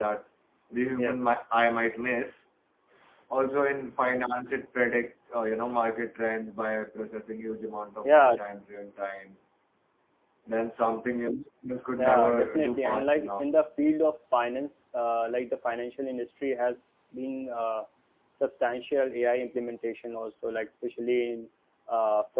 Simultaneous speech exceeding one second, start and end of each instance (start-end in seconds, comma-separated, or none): 12.0-13.4